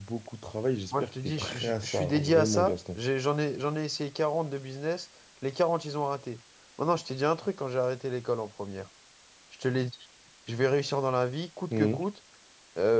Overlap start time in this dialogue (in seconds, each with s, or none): 0.9 s